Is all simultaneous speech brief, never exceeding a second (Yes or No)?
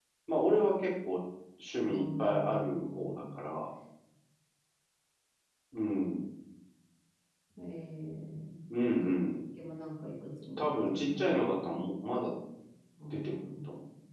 No